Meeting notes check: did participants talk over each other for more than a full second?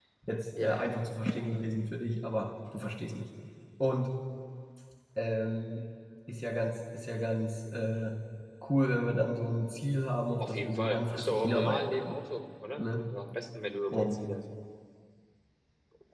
Yes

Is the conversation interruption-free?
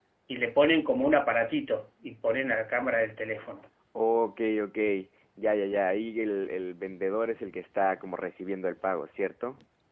Yes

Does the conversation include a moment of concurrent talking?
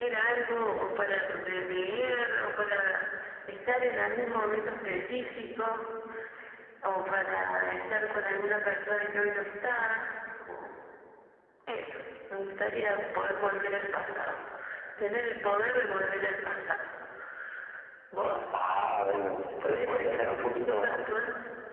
Yes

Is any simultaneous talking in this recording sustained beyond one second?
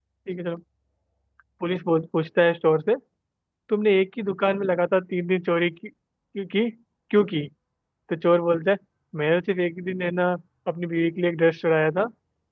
No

